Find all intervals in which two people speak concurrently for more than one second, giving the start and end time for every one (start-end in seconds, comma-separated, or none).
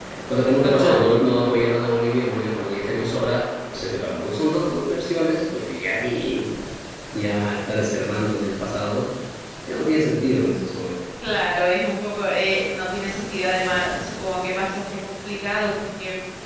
none